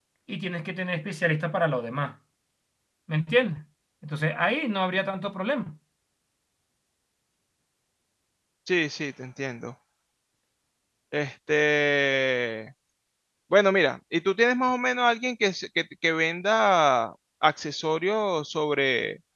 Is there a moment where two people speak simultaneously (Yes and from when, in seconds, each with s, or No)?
No